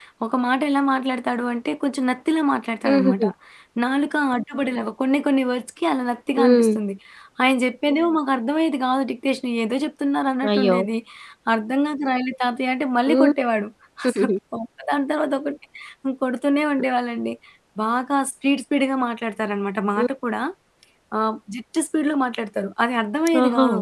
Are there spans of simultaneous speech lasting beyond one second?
No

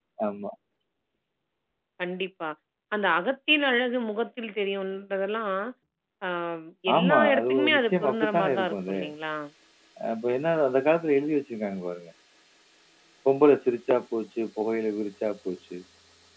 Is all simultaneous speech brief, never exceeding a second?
No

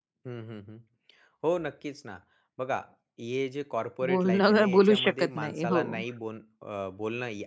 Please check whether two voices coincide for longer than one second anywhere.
Yes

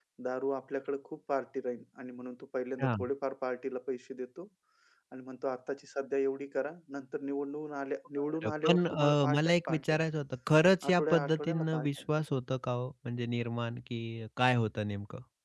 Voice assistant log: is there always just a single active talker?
No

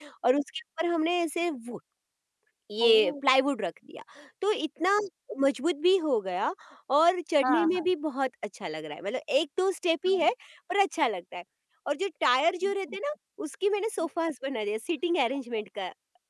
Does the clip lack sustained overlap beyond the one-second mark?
Yes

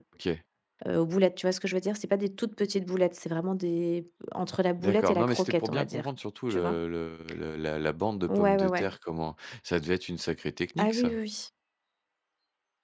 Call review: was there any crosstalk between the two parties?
Yes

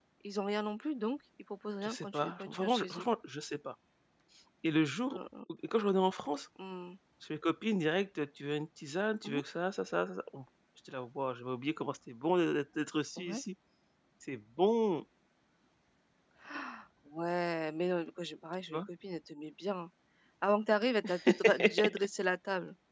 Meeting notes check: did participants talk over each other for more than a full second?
Yes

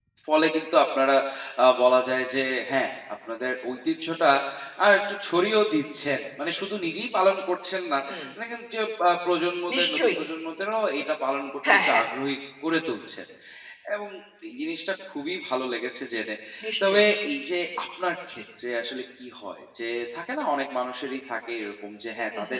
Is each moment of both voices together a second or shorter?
Yes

